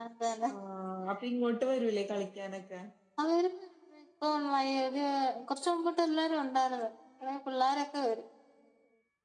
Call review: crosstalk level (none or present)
none